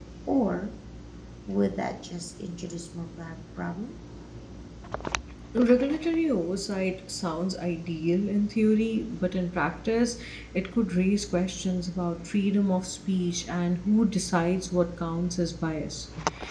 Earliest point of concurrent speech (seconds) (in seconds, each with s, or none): none